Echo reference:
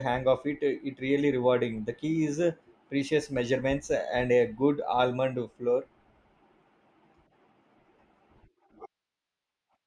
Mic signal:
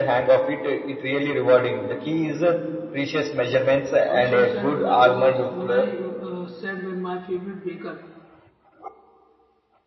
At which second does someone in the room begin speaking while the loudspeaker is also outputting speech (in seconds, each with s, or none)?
4.1 s